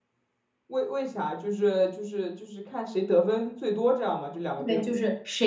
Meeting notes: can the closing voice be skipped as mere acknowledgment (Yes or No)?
No